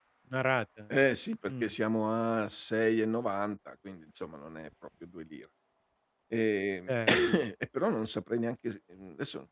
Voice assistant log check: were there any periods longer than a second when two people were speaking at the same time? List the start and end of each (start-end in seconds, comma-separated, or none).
none